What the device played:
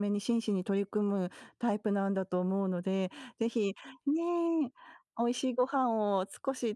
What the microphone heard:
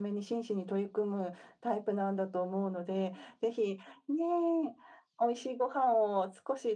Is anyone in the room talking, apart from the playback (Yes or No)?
No